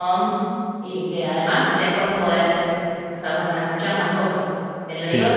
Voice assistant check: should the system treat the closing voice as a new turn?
No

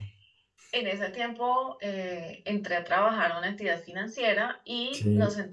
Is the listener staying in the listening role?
Yes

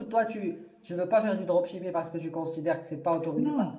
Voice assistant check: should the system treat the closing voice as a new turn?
Yes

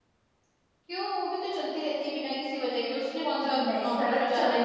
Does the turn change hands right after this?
Yes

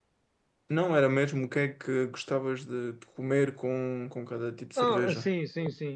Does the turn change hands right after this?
Yes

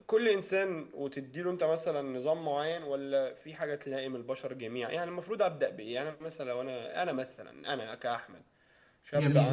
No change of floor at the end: Yes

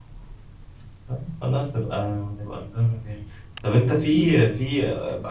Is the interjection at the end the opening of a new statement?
No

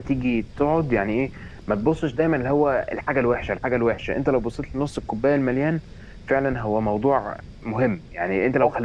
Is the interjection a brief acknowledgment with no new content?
Yes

